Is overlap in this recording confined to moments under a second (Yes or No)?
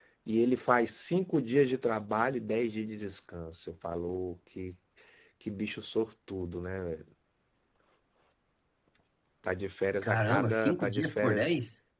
No